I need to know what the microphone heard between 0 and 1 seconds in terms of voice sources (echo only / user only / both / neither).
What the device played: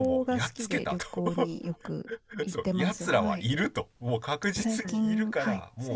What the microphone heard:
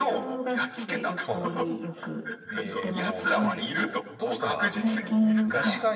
echo only